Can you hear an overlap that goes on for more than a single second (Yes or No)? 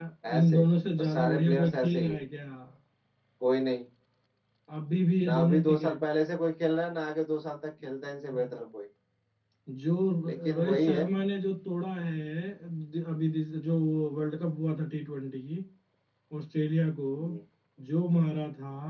Yes